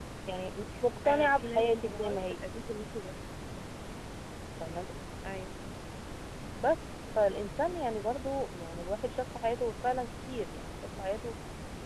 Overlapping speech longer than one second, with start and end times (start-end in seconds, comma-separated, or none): 1.1-2.3